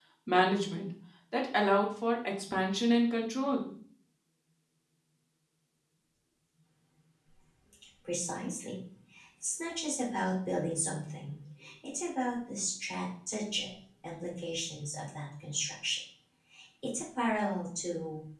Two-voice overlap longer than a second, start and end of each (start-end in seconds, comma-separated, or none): none